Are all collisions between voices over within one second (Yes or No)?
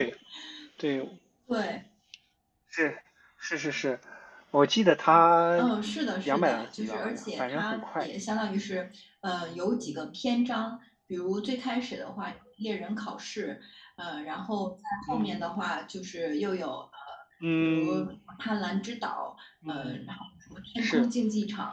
No